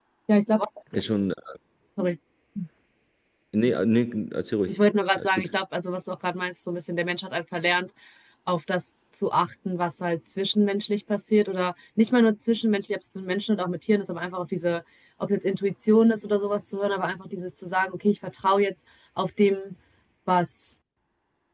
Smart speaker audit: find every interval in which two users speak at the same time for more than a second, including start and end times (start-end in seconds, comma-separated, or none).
none